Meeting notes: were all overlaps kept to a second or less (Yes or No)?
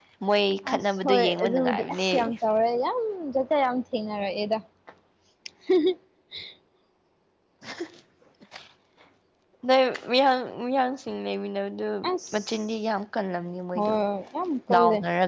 No